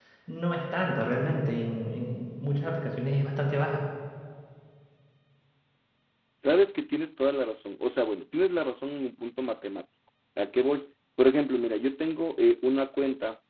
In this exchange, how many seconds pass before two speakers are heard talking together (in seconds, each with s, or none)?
none